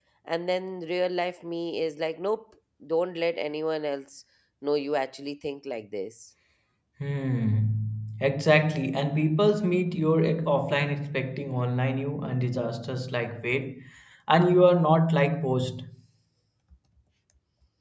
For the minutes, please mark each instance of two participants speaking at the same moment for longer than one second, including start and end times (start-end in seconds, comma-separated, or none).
none